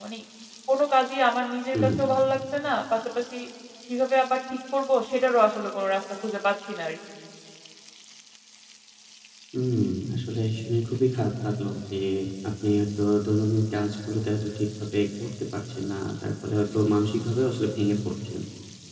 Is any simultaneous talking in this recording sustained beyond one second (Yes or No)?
No